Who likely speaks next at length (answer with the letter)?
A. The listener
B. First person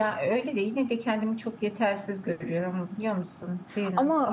A